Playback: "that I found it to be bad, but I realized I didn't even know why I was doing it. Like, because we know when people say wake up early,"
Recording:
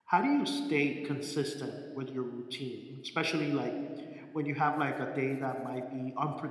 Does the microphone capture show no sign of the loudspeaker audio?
Yes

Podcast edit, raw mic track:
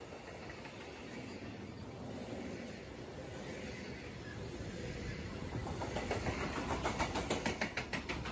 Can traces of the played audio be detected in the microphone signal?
No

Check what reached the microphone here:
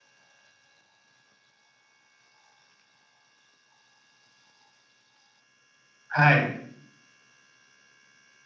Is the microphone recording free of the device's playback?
Yes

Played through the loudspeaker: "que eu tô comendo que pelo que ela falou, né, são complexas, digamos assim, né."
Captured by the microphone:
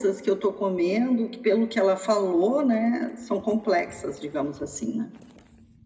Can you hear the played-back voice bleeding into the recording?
Yes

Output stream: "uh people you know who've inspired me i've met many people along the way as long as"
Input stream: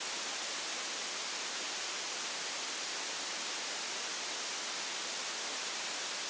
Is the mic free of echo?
Yes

